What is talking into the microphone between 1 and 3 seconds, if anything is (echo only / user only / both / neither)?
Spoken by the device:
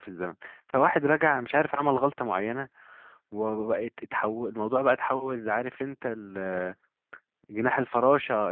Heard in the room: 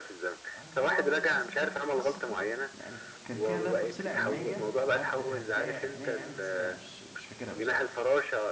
both